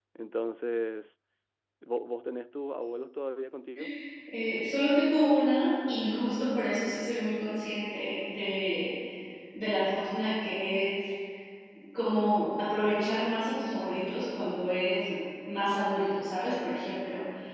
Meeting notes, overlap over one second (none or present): none